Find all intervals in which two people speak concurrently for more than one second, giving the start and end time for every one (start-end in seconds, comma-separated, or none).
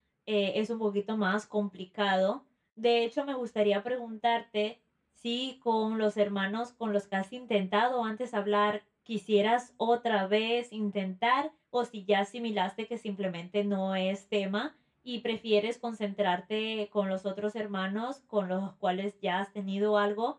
none